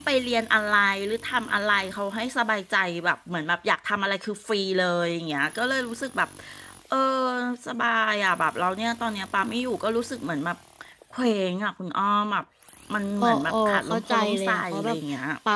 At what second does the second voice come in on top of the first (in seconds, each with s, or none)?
13.2 s